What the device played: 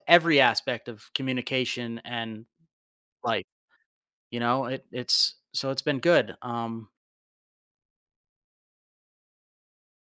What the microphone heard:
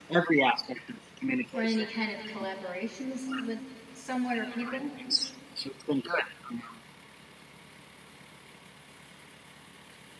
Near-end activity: present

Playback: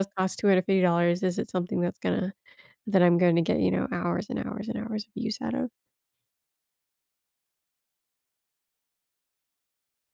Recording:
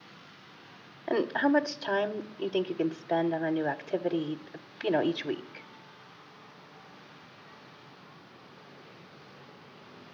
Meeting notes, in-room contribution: present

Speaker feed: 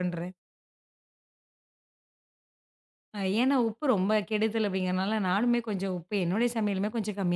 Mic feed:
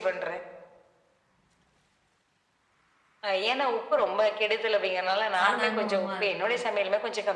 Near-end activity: present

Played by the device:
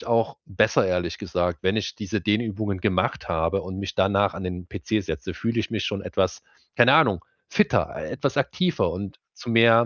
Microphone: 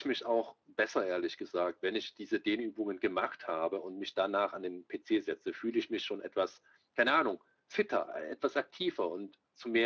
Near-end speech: none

